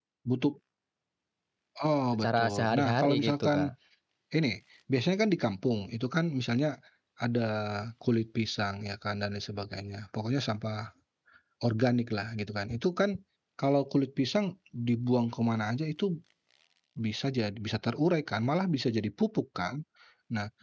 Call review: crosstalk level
present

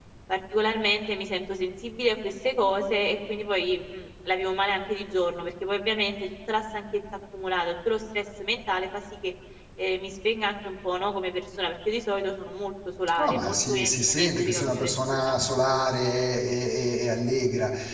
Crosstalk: present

